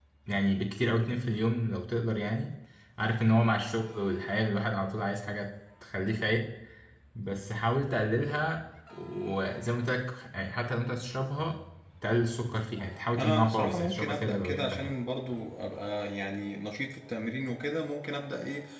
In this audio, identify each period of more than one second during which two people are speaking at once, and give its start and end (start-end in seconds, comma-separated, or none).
13.2-14.9